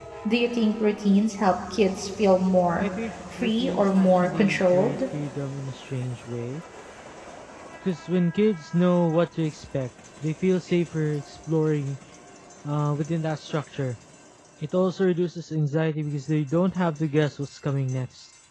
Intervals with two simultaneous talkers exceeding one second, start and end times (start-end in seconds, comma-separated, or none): 3.4-5.0